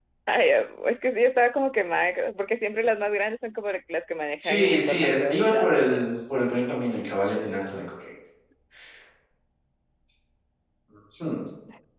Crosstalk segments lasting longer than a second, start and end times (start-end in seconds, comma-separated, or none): 4.4-6.1